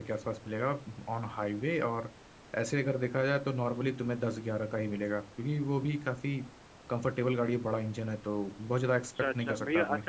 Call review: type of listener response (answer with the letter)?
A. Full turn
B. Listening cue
A